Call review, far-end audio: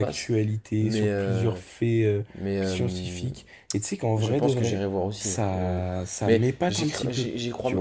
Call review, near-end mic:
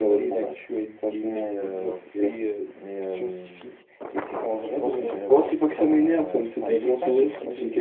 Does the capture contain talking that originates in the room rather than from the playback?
Yes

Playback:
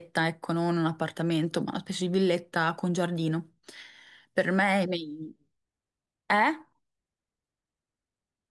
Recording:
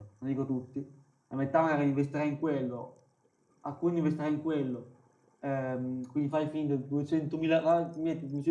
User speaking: Yes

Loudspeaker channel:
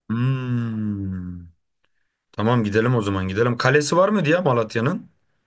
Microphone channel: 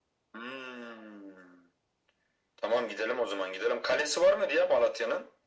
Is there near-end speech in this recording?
No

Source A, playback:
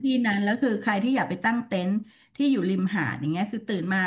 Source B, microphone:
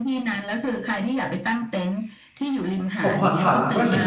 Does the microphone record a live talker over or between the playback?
Yes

